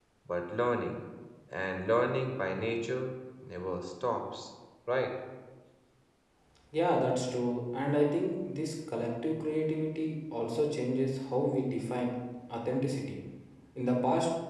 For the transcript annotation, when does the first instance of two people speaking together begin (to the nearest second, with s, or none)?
none